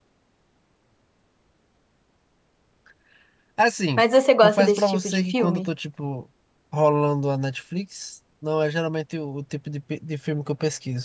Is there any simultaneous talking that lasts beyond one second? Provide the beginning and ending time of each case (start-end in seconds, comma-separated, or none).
4.4-5.7